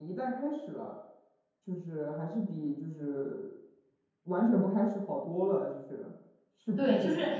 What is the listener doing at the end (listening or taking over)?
taking over